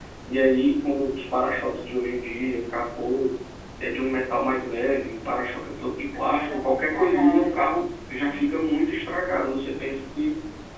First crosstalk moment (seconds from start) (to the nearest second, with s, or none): 6 s